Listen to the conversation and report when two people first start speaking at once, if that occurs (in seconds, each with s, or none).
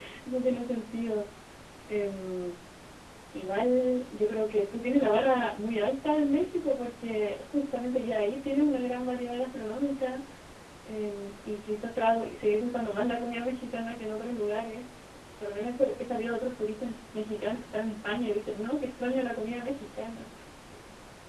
none